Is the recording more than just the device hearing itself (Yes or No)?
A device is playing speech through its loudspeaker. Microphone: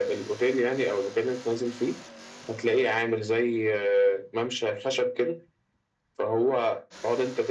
No